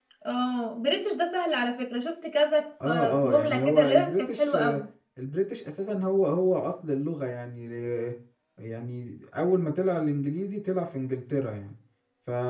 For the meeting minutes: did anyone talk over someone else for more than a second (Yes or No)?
Yes